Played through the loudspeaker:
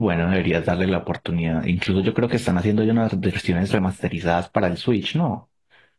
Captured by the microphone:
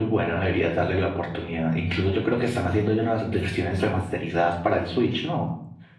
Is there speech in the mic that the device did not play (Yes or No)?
No